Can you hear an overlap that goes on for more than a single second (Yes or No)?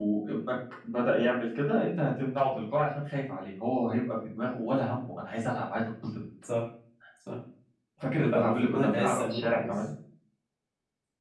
Yes